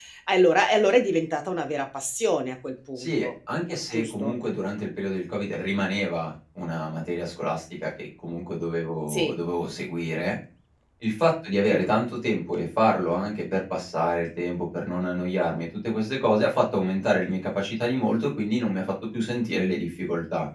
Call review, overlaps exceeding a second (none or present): none